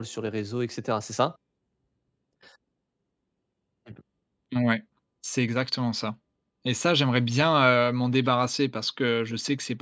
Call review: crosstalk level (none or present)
none